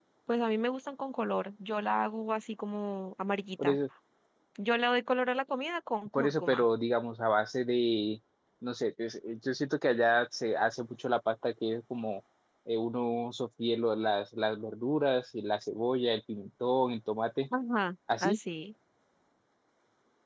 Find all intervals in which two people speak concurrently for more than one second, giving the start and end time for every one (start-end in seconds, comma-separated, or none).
none